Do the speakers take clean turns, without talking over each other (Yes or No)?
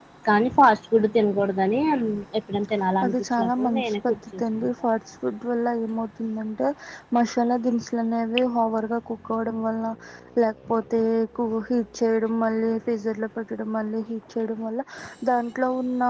No